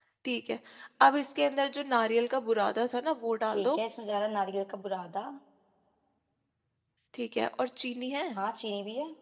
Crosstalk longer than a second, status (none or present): none